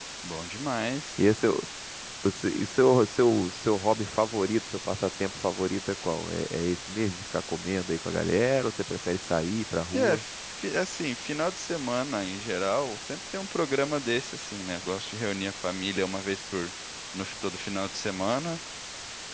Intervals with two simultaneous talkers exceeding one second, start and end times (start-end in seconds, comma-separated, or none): none